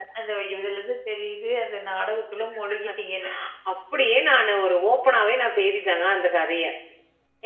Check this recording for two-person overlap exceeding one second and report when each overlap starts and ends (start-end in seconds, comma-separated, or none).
none